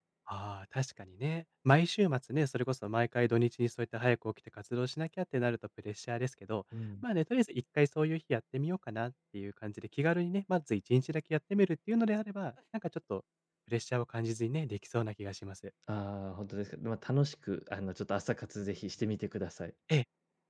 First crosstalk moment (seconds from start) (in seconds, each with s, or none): none